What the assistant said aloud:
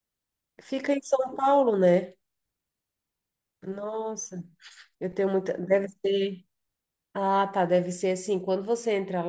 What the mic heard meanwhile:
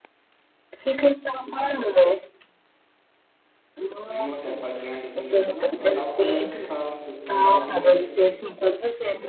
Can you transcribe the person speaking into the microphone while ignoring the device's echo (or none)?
Nem no hotel fazendazinho assim, não. Eu andava quando era criança. Eu andava quando era criança.